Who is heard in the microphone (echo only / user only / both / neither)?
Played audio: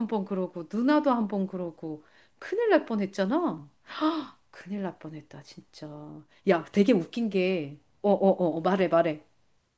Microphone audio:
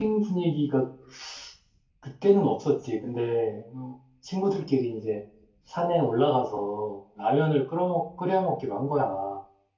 user only